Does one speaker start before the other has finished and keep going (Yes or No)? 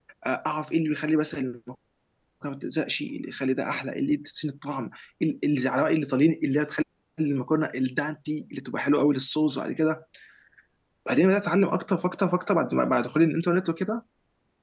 No